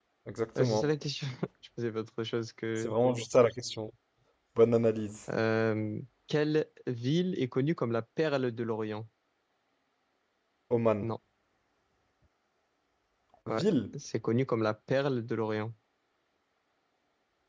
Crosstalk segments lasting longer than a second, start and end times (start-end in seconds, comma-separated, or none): none